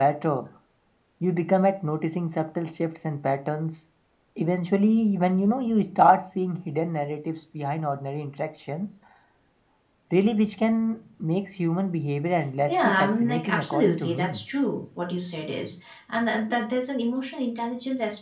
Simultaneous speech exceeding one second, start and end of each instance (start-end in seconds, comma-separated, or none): 12.7-14.4